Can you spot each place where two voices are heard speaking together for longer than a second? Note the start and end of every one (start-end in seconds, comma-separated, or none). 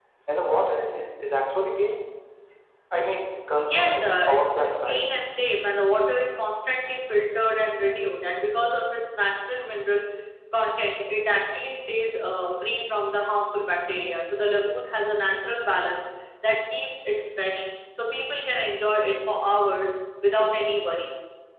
3.6-5.0